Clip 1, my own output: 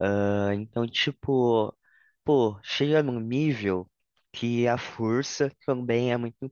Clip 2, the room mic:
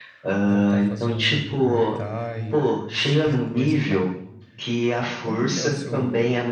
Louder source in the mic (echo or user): echo